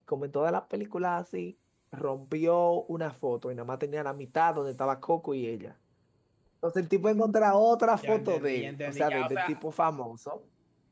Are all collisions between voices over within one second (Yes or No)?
No